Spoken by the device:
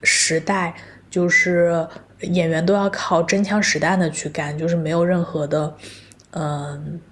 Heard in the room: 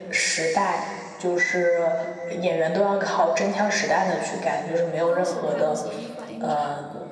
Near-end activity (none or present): present